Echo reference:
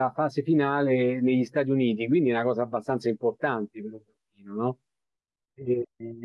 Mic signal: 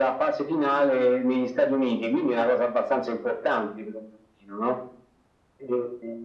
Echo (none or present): present